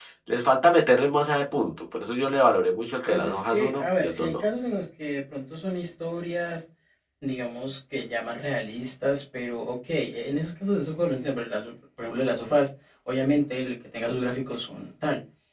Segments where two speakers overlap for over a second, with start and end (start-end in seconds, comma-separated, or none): 3.0-4.4